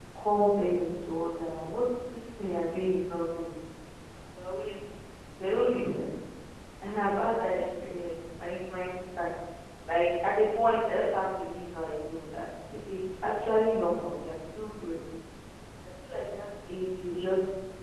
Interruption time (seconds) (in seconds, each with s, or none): none